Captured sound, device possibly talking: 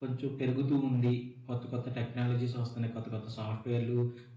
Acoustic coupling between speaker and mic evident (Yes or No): No